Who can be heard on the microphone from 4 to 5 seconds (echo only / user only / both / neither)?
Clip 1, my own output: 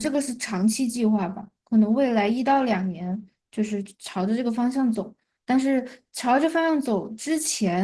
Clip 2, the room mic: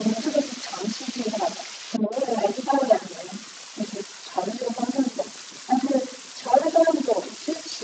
echo only